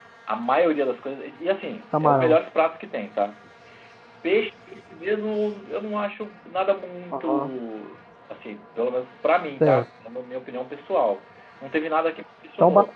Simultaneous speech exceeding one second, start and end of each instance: none

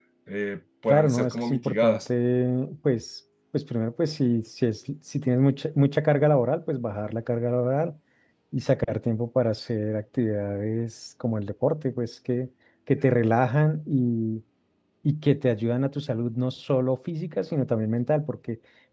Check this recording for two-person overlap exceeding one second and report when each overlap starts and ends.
0.9-2.1

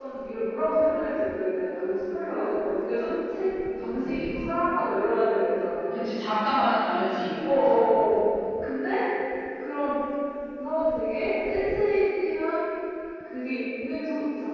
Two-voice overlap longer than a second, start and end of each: none

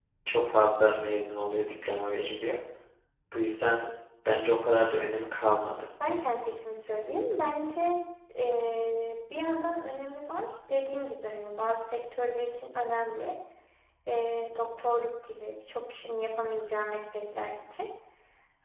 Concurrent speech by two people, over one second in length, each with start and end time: none

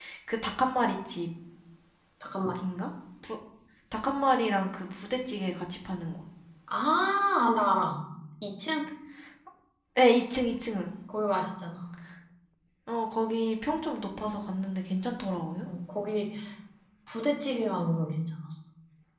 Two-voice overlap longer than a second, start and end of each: none

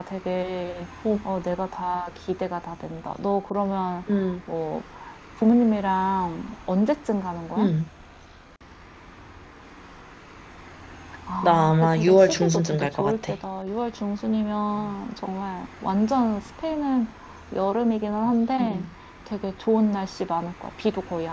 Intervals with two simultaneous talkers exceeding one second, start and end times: 11.4-13.3

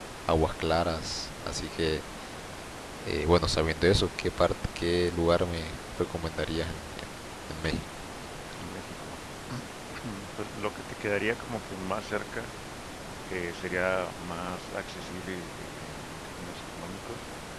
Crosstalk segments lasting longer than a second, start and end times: none

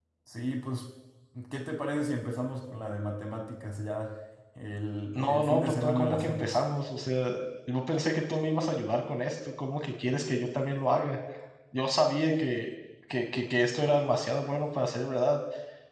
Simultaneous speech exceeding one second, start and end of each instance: 5.2-6.6

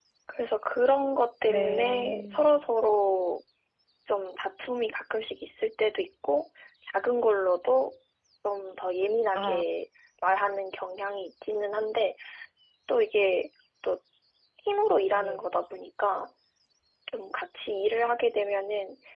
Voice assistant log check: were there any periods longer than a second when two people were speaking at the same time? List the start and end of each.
1.5-2.7

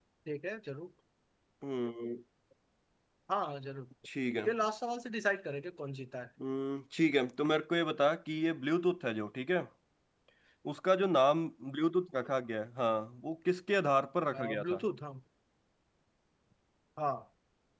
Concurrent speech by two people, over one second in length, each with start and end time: none

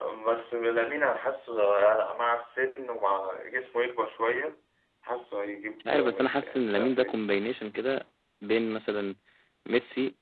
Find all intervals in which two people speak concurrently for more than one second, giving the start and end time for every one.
5.8-7.2

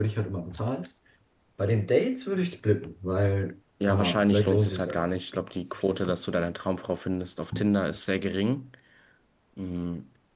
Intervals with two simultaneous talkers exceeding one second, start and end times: 3.9-5.4

